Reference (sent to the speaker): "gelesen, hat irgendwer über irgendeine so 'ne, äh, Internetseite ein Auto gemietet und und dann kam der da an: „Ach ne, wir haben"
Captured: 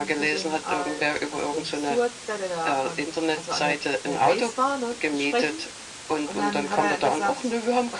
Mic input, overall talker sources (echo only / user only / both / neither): both